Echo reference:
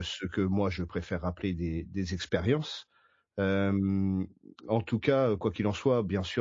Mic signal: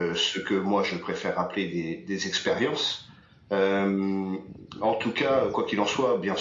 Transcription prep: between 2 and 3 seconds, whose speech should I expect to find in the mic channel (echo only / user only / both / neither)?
echo only